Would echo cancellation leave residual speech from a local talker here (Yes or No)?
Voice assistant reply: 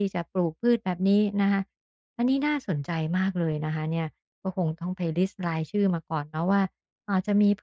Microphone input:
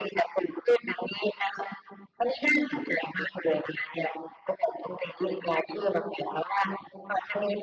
No